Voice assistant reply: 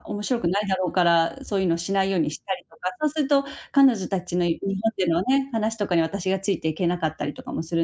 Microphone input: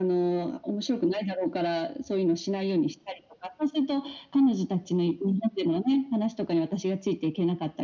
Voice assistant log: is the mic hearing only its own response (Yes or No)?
Yes